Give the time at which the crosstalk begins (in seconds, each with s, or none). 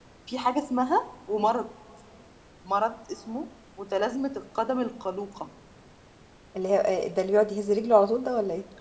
none